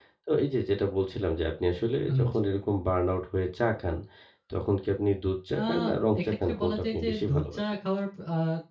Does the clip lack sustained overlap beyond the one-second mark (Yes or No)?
No